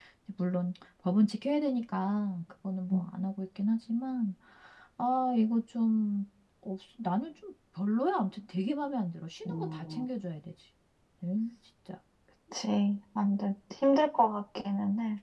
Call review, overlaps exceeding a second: none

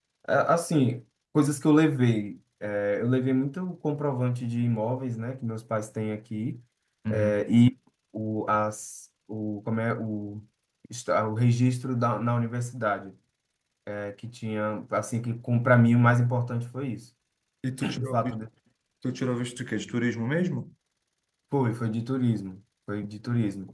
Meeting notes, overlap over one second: none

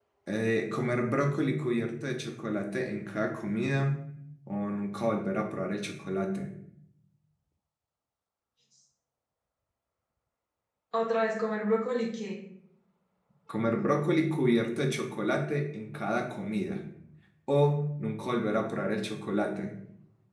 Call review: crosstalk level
none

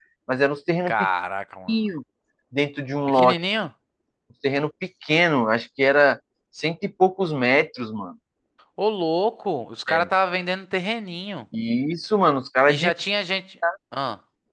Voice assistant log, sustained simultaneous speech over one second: none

